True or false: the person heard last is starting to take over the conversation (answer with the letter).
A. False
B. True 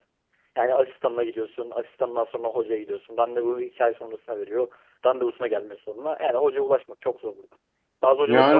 B